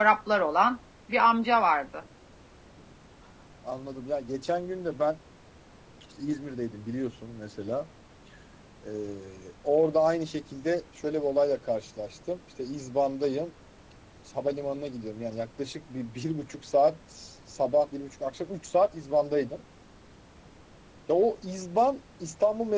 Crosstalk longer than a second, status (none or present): none